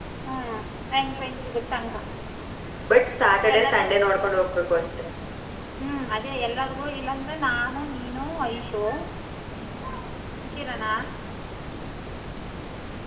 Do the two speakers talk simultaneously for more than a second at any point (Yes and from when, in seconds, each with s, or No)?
No